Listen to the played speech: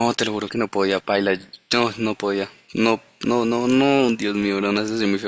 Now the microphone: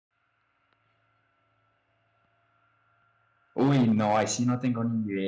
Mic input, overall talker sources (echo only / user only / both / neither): user only